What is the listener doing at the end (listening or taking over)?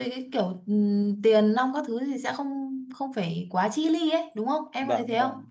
taking over